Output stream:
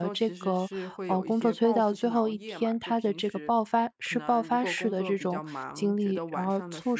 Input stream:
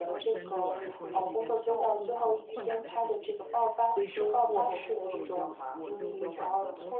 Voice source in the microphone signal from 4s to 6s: both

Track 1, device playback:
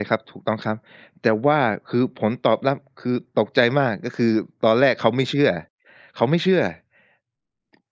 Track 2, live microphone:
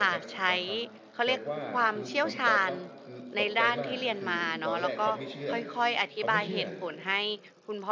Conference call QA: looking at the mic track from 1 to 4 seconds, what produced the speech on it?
both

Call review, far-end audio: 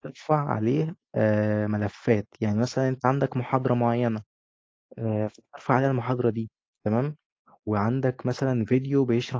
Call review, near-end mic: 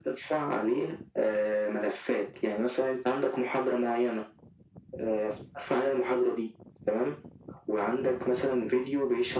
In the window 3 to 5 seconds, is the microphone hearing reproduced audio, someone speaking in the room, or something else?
echo only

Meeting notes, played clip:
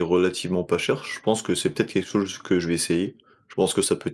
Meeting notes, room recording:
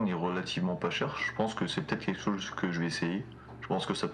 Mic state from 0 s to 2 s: echo only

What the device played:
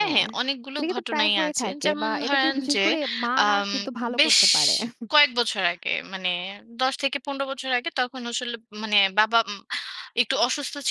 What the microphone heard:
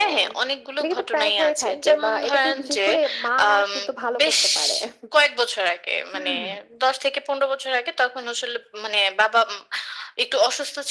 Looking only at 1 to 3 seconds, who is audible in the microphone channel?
echo only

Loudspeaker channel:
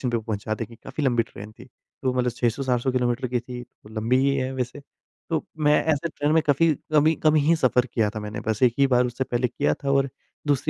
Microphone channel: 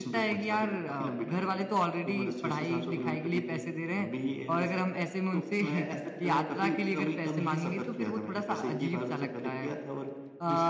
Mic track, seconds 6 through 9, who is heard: both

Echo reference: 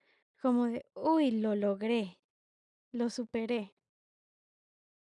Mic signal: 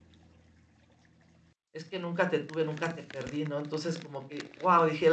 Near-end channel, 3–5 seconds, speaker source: user only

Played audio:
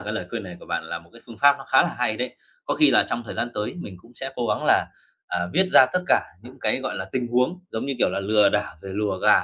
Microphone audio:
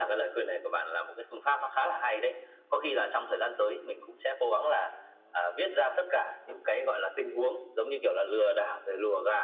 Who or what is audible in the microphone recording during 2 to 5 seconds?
echo only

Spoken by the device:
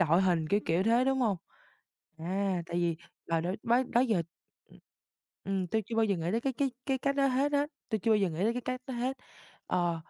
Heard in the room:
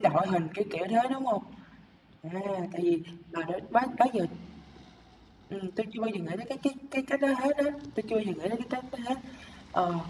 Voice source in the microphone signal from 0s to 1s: echo only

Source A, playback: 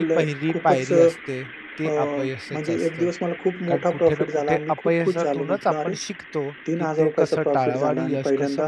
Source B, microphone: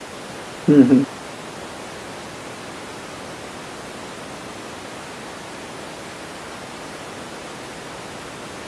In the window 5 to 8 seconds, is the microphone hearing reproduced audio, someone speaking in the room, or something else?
neither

